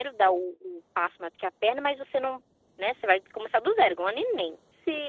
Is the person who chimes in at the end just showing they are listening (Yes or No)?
No